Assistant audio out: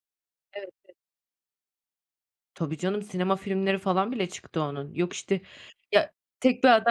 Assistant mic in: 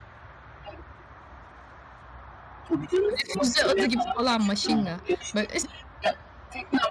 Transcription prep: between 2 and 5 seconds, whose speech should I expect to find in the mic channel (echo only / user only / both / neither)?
both